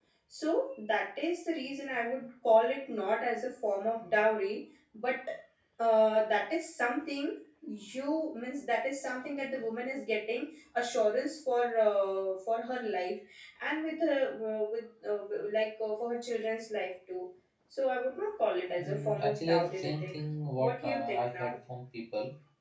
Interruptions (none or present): present